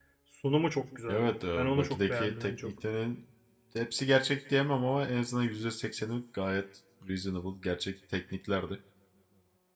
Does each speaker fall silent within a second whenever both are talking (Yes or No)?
No